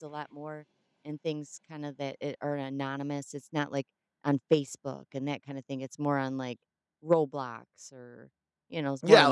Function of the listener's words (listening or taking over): taking over